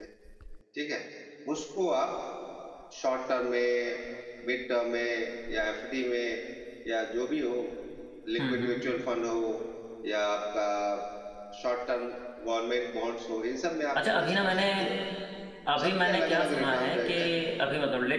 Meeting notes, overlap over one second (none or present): present